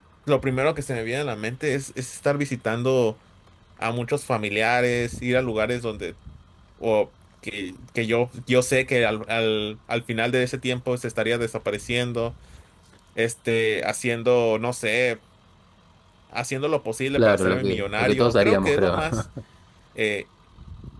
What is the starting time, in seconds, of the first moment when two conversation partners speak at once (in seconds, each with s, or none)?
17.2 s